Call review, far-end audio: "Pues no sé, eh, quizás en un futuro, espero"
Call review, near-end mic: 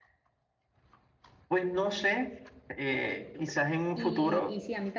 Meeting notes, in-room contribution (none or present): present